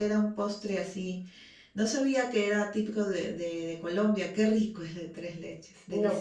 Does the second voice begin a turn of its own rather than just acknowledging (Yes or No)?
Yes